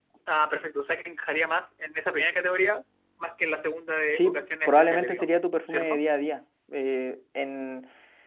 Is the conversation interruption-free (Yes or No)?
No